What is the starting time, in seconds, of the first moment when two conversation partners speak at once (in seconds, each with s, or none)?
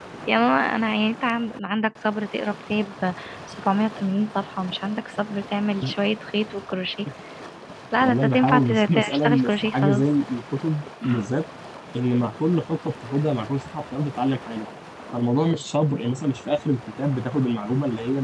8.0 s